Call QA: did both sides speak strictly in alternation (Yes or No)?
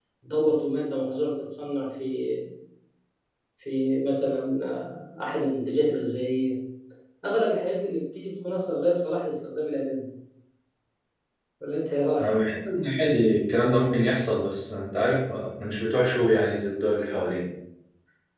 Yes